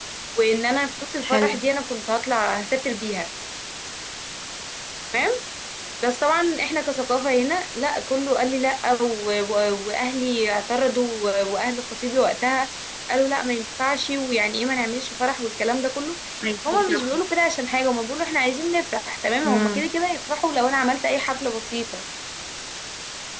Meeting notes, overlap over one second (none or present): none